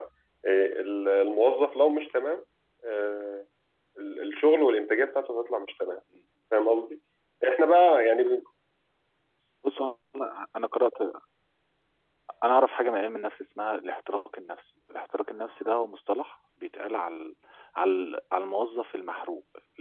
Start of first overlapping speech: none

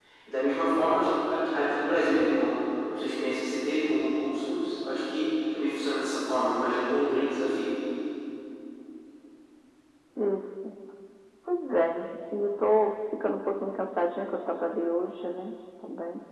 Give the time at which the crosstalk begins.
none

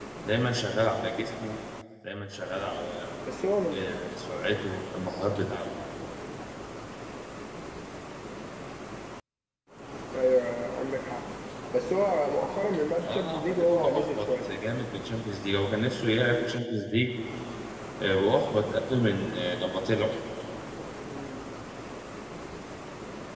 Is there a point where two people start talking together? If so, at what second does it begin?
13.0 s

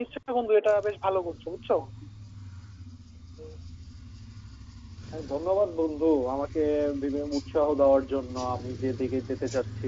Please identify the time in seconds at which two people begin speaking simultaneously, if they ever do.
none

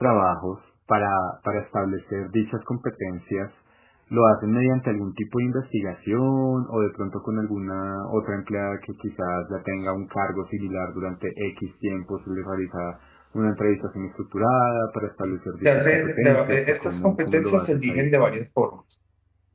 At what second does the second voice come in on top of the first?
15.6 s

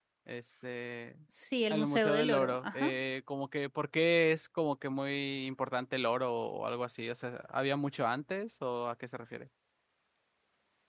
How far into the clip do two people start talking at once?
1.7 s

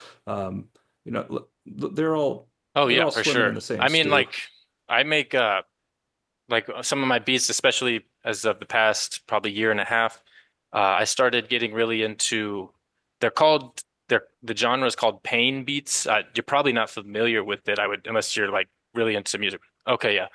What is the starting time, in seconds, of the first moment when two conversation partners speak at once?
2.8 s

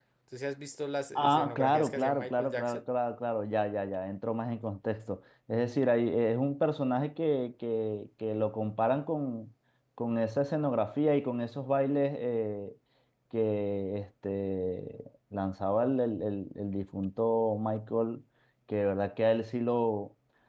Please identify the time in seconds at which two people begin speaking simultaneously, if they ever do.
1.2 s

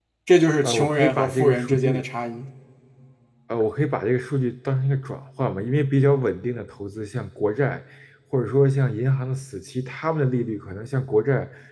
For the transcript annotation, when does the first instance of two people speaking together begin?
0.6 s

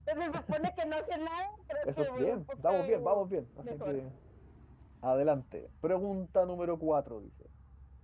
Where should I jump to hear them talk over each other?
1.8 s

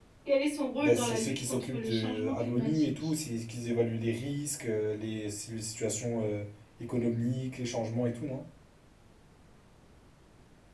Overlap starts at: 0.8 s

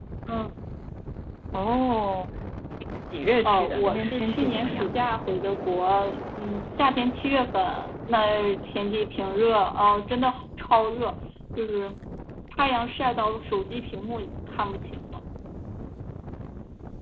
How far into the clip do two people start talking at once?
3.4 s

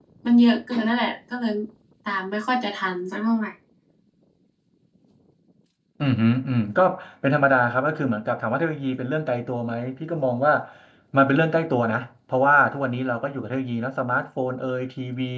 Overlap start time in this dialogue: none

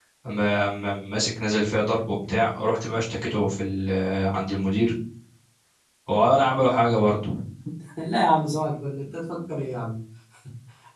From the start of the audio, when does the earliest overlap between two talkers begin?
none

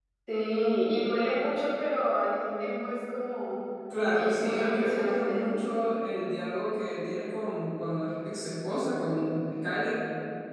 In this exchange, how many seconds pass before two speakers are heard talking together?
3.9 s

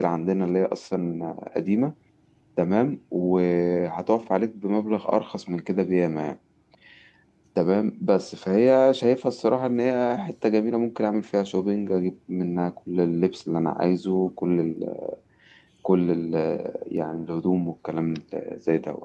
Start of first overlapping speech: none

